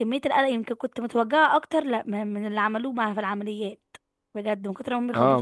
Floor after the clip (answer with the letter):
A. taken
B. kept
A